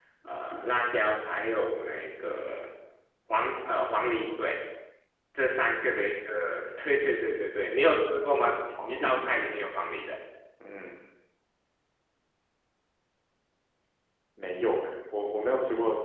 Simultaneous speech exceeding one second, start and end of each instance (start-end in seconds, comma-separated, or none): none